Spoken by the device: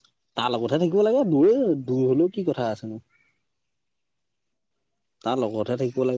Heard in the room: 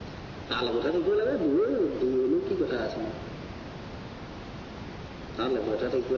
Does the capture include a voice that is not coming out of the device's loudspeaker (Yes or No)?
No